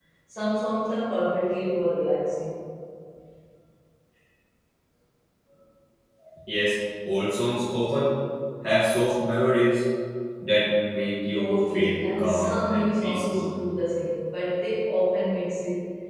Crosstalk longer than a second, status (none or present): present